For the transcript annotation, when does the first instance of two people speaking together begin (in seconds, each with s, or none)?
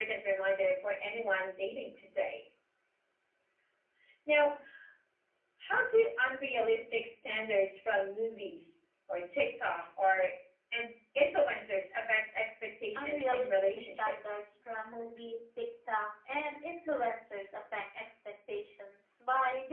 12.9 s